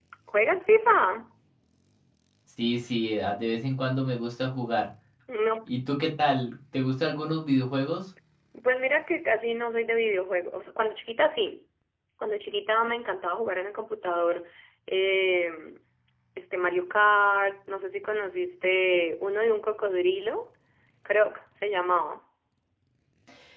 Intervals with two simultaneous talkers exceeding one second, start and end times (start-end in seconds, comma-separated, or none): none